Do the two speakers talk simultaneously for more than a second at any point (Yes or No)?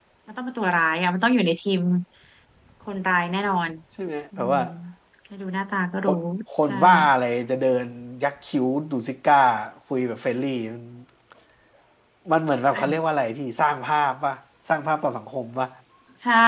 No